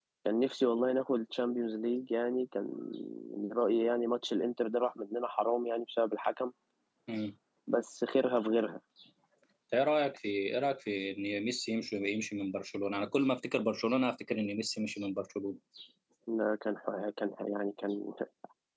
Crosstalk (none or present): none